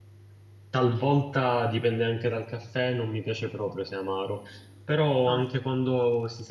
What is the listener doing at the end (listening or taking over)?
listening